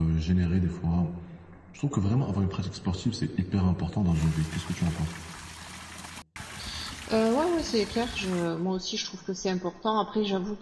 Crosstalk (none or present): none